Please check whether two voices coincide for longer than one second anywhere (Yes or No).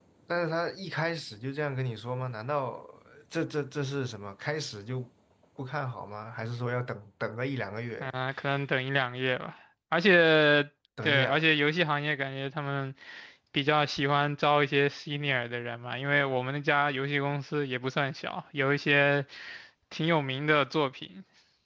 No